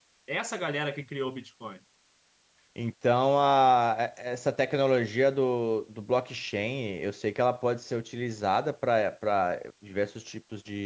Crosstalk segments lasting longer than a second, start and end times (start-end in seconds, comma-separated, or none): none